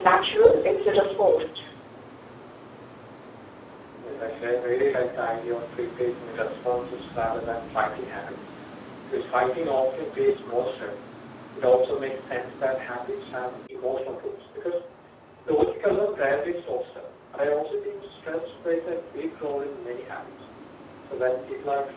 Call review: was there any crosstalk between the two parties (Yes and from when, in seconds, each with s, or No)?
No